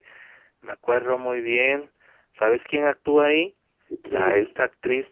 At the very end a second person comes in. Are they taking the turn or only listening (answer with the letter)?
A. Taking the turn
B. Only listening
B